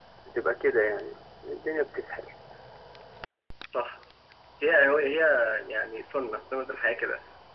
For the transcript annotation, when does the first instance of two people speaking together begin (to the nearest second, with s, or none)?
none